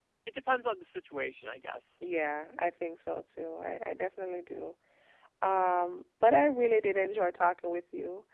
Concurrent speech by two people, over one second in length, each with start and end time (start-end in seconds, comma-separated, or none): none